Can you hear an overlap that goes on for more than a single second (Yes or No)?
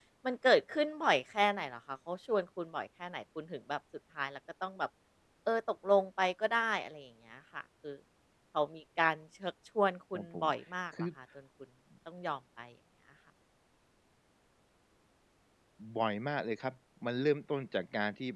No